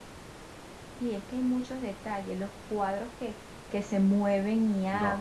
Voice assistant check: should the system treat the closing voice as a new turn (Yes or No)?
Yes